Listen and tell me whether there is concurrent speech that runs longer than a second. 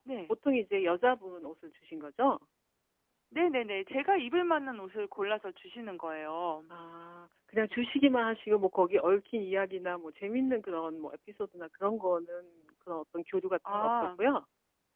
No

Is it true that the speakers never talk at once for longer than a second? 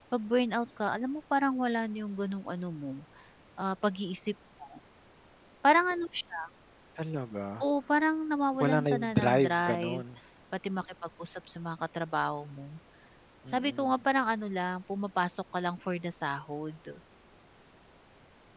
No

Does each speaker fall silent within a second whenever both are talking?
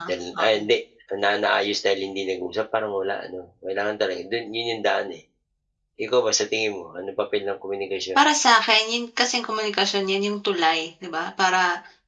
Yes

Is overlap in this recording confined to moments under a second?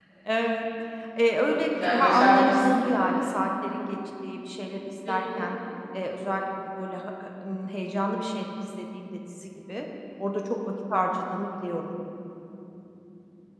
No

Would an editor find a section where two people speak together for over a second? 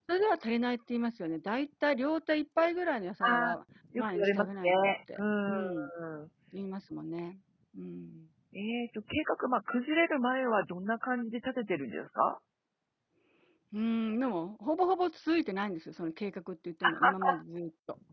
Yes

